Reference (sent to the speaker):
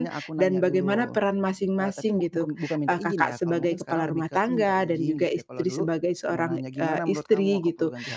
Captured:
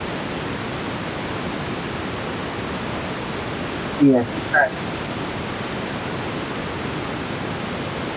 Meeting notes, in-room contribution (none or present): present